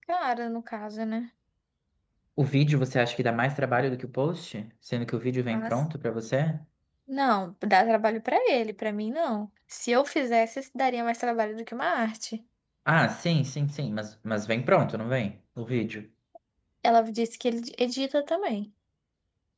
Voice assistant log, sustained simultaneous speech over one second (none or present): none